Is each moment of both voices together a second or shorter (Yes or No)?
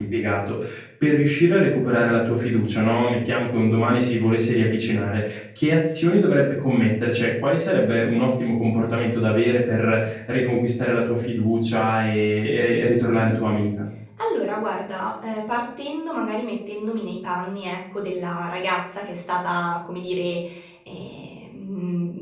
Yes